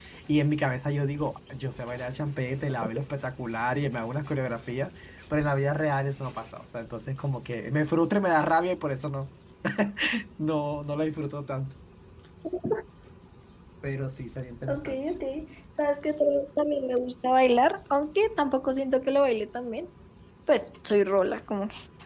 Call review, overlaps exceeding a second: none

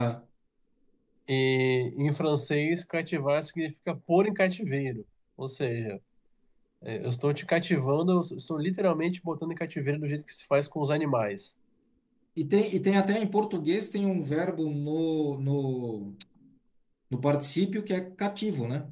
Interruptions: none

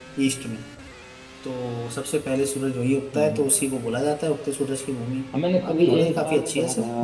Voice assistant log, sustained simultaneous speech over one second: present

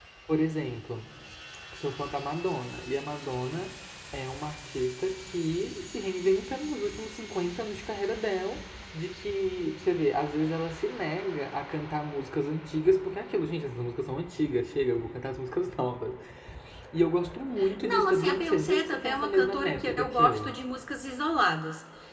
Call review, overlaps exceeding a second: present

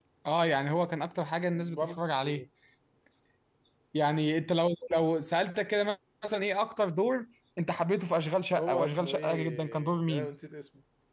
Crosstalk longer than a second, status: present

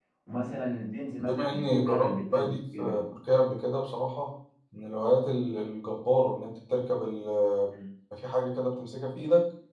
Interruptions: present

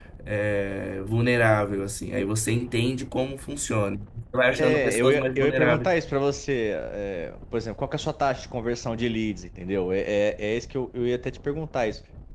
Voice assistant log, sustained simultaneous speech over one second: present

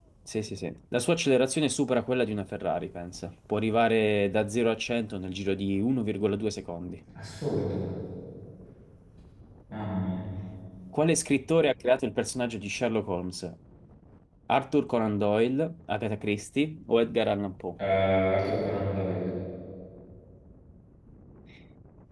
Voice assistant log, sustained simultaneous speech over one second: none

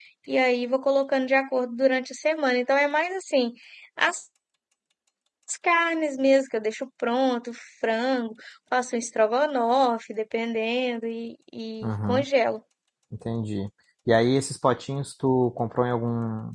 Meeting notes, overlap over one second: none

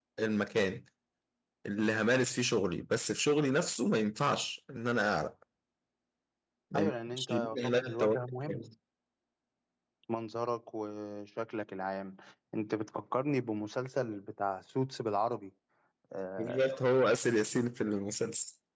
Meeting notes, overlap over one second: present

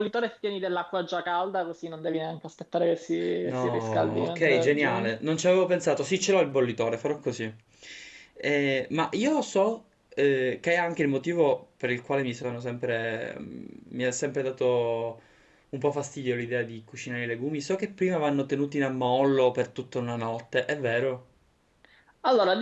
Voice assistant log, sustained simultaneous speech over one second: present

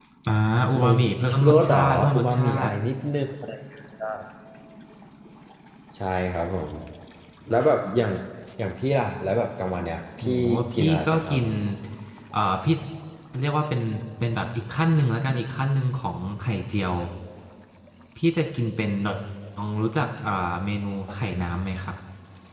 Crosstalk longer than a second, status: present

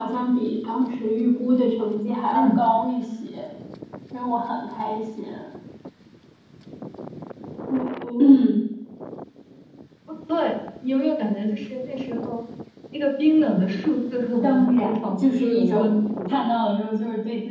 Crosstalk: present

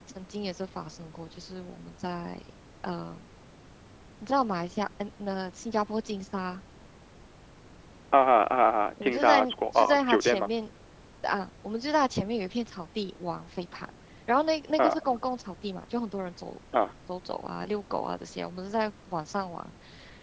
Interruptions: present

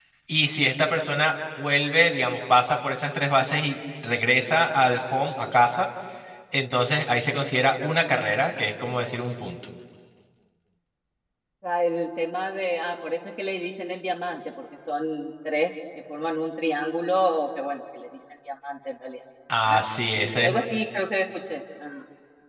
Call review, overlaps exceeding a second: none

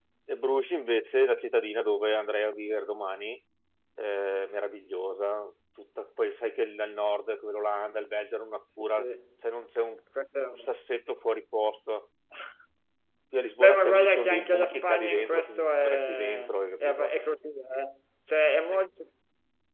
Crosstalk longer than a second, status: present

